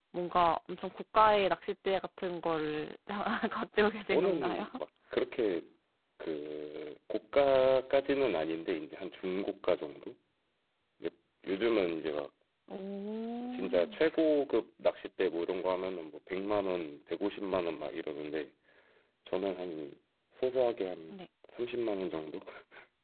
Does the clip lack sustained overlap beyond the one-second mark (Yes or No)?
Yes